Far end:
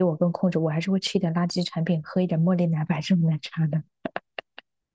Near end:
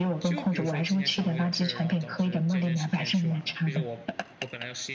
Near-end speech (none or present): present